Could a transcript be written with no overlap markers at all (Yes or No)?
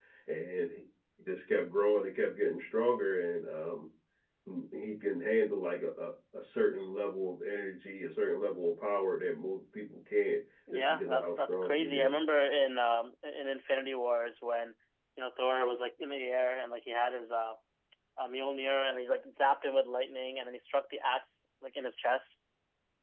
No